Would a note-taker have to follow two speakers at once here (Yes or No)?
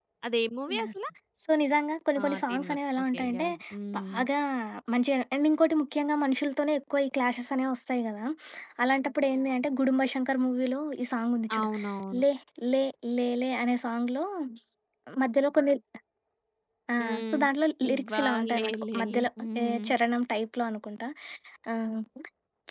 Yes